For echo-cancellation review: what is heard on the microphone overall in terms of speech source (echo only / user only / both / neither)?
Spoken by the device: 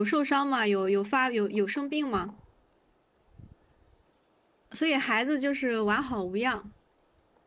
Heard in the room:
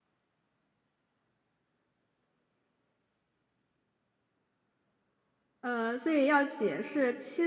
user only